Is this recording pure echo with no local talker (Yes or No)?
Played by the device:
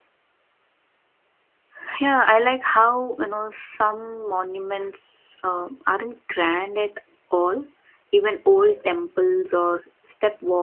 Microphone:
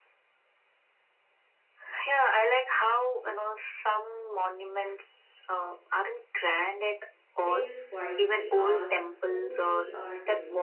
No